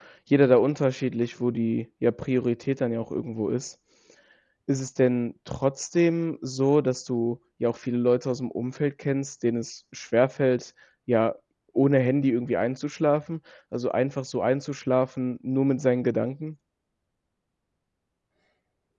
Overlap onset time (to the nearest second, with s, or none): none